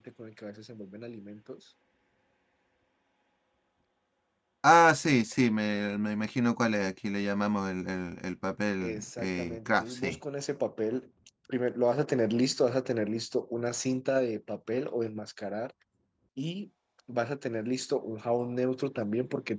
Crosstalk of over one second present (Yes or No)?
Yes